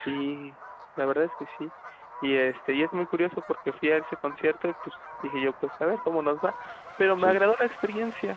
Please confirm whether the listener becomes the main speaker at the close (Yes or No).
No